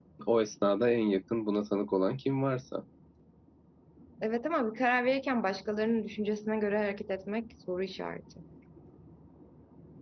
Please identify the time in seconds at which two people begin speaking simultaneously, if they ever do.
none

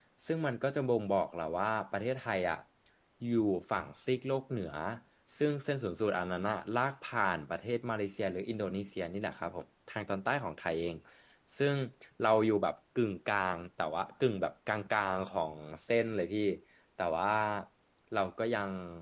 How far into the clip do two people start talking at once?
none

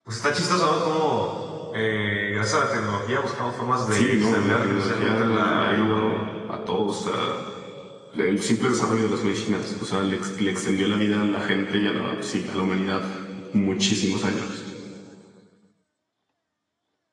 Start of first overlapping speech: 4 s

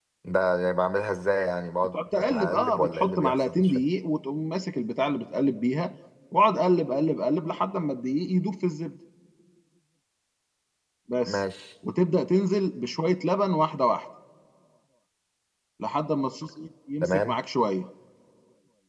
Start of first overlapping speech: 2 s

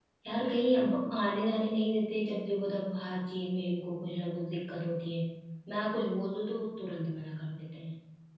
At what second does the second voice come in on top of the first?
none

